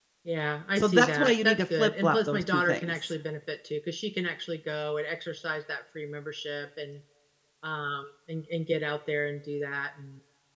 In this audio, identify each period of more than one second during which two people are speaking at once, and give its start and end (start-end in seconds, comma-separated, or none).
0.8-3.1